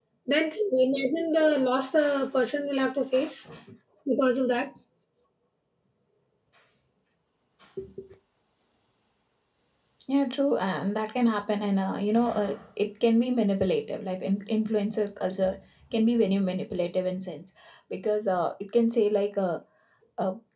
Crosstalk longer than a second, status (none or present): none